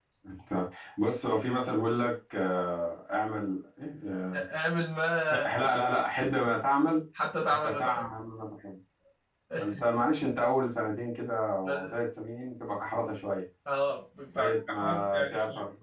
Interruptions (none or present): present